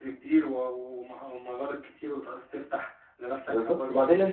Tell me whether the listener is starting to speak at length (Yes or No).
Yes